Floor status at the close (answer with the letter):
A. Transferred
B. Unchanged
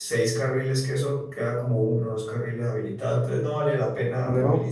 B